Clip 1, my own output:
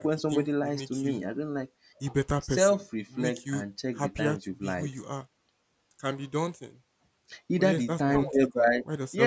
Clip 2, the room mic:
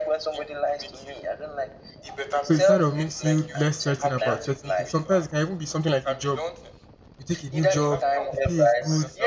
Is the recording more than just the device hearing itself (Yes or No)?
Yes